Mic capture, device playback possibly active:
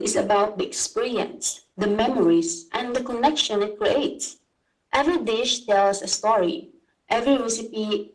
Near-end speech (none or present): none